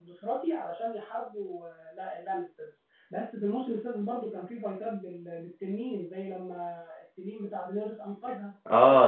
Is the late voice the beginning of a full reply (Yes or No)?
Yes